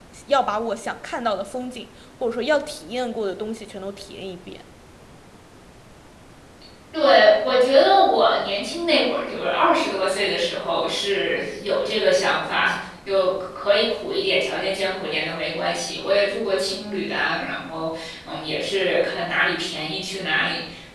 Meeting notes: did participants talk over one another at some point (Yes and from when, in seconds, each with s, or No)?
No